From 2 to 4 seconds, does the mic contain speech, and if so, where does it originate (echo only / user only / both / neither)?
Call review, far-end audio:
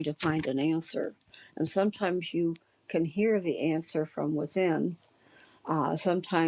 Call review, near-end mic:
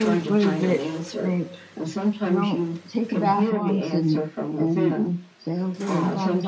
both